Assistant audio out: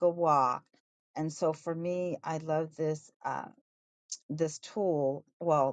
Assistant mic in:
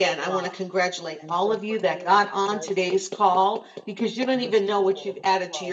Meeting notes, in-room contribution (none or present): present